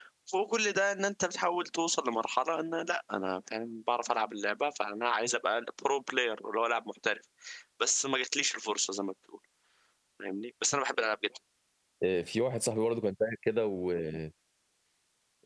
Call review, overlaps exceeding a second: none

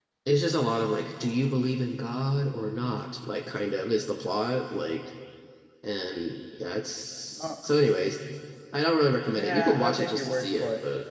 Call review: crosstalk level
present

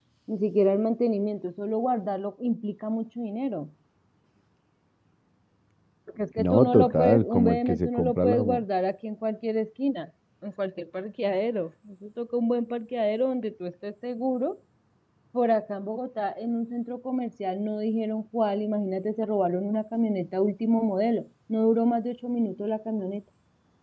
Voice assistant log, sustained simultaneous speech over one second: present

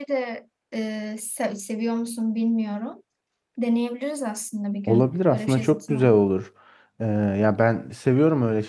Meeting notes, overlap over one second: present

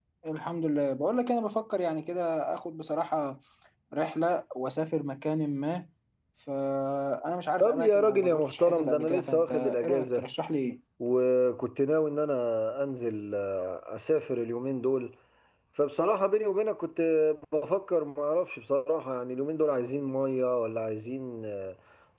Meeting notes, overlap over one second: present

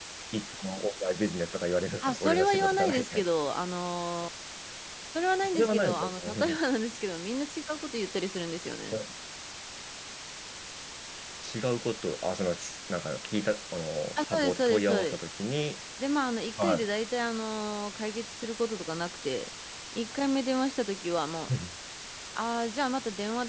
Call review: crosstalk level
present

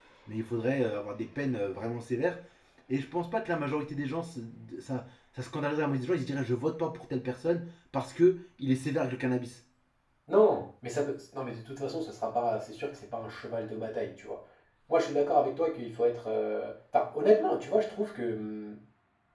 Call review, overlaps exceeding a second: none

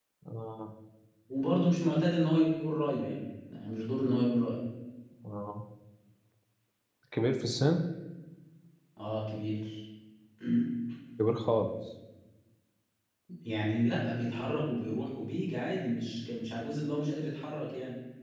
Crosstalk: none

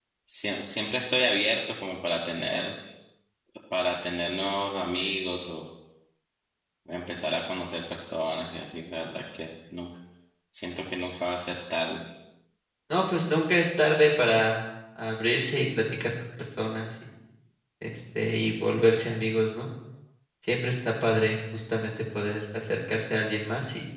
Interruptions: none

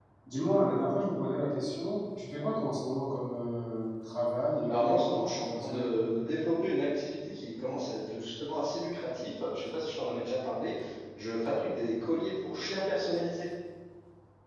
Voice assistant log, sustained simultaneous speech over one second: present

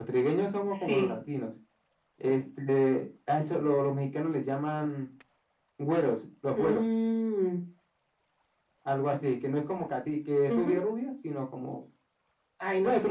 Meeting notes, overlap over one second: none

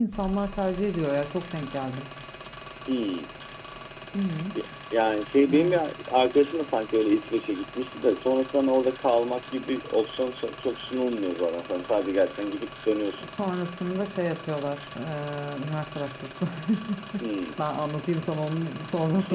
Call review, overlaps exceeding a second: none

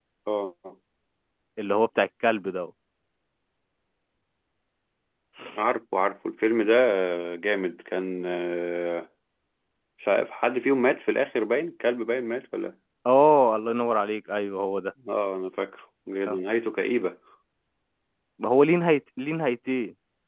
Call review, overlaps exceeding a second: none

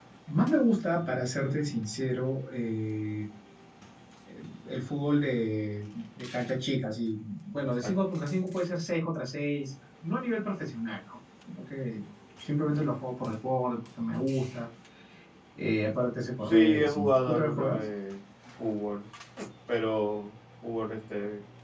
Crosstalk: present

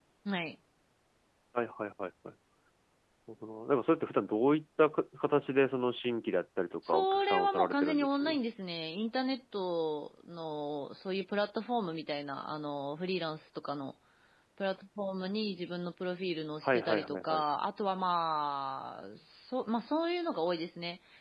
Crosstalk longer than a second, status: present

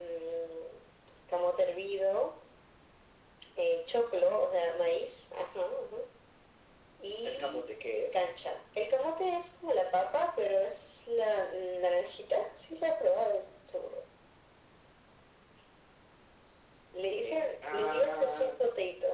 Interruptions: present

